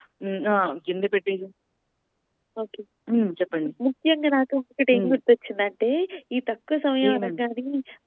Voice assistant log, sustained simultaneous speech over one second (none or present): none